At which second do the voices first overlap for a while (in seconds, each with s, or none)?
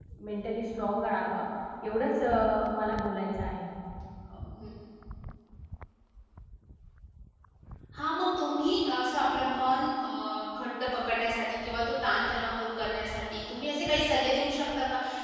none